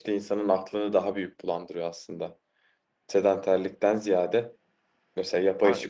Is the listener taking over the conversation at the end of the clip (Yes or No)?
No